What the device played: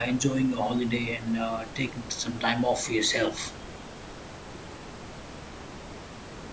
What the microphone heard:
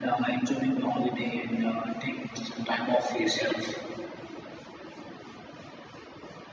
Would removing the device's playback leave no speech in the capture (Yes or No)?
Yes